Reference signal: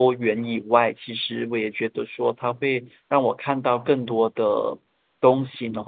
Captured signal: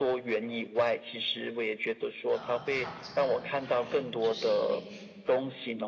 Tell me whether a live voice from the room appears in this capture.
Yes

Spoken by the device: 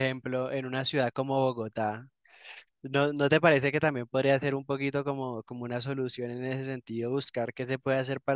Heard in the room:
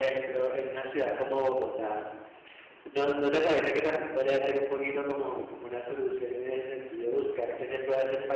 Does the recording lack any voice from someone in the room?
Yes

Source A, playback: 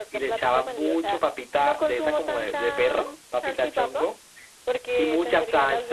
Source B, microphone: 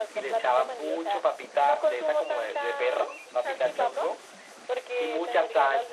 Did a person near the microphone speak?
No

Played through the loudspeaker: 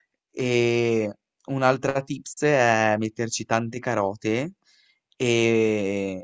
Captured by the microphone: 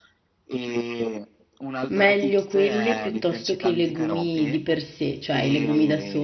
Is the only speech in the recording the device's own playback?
No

